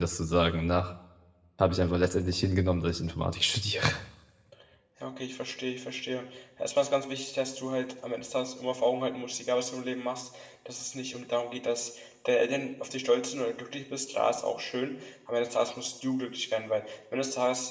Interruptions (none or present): none